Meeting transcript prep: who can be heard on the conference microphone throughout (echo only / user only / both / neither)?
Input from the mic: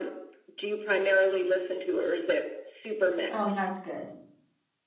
both